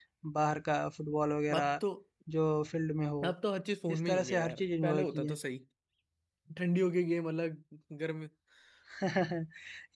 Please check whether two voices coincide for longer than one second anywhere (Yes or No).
Yes